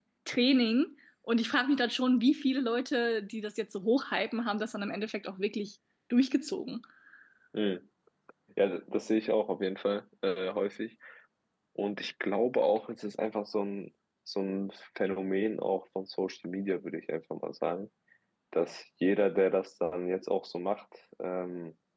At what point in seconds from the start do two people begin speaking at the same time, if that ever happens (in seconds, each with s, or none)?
none